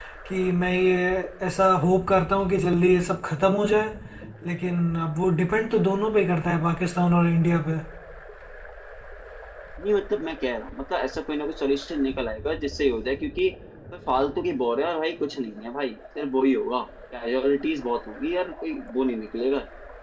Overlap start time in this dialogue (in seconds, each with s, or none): none